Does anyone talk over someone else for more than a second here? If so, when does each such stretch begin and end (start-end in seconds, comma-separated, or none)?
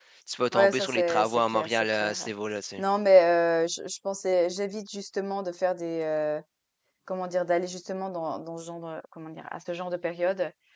0.5-2.3